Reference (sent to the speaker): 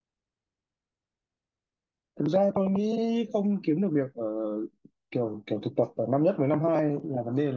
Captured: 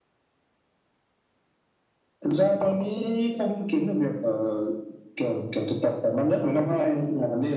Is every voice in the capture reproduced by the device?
Yes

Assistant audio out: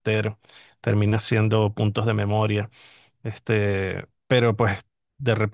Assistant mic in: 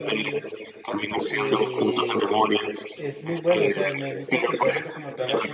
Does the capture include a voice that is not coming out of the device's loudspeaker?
Yes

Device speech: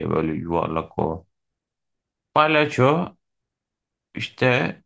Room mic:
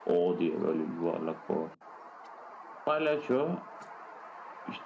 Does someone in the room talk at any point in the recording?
No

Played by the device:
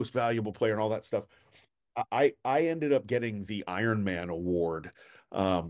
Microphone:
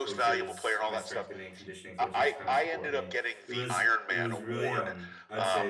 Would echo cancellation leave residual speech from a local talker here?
Yes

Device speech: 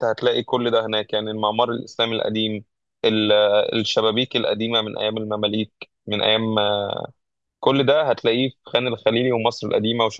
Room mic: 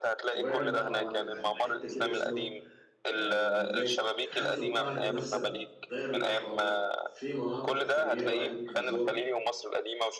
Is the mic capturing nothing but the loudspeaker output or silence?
No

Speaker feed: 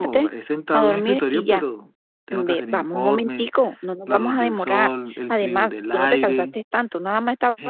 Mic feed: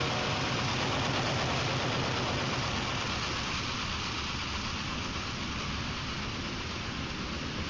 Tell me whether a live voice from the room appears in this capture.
No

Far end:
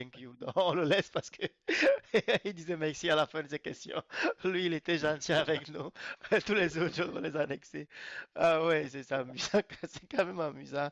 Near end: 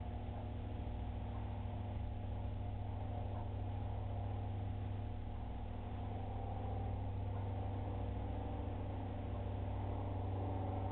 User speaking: No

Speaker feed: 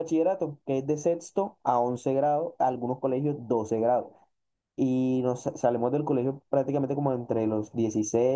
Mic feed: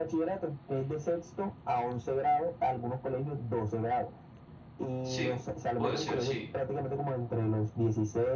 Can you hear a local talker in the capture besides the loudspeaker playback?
Yes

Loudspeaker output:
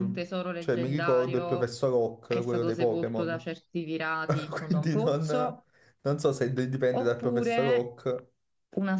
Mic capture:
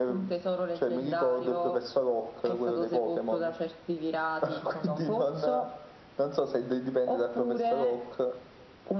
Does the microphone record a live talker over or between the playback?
No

